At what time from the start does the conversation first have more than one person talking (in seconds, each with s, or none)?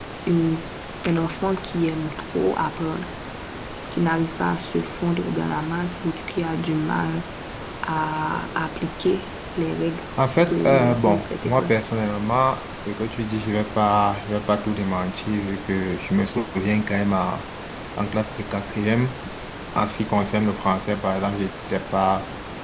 10.4 s